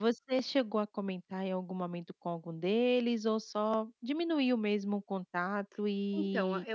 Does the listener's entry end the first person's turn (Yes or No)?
Yes